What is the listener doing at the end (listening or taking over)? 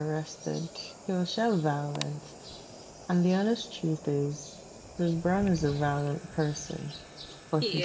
listening